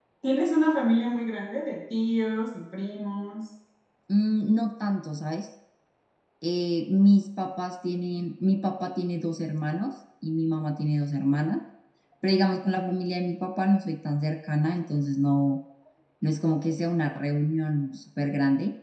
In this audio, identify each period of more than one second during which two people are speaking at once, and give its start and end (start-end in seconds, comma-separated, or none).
none